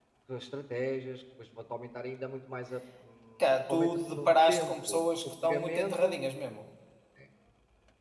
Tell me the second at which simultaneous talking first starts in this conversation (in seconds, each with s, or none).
3.4 s